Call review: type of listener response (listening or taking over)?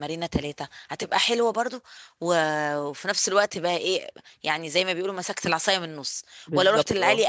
listening